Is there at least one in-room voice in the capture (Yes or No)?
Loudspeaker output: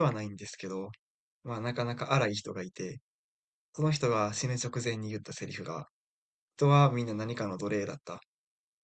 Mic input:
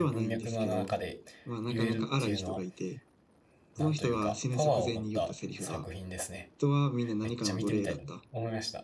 Yes